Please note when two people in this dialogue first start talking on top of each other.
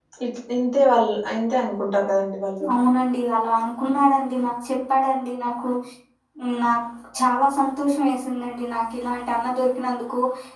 none

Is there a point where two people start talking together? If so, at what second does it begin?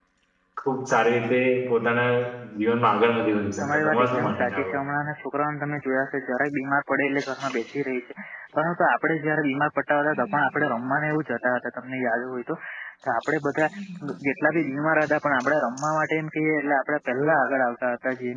4 s

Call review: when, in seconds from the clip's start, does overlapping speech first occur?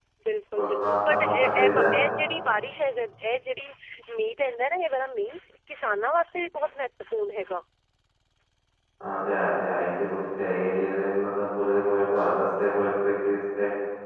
1 s

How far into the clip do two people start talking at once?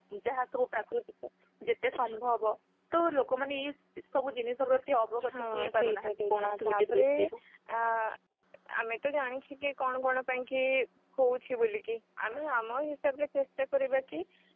5 s

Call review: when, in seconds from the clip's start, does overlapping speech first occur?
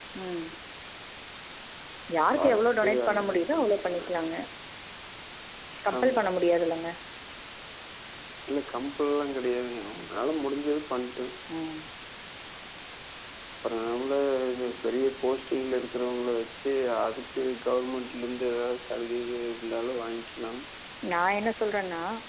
2 s

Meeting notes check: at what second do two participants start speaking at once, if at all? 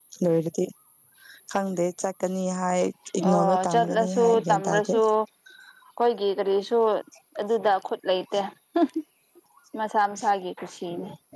3 s

